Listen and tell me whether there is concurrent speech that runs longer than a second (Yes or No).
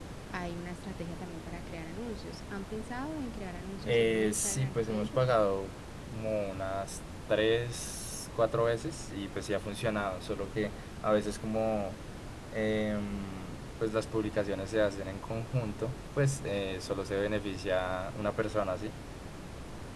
Yes